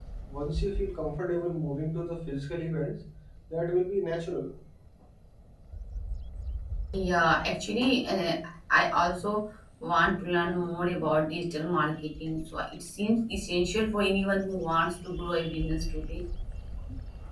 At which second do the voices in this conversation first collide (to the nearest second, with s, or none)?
none